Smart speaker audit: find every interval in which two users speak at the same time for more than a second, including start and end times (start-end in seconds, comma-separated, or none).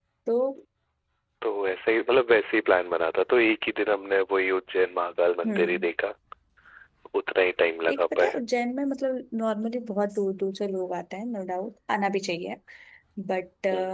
none